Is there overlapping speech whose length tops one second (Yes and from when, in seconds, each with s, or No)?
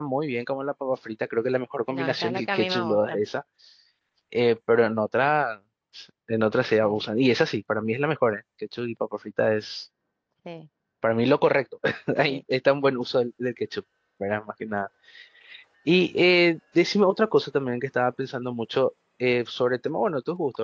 Yes, from 1.9 s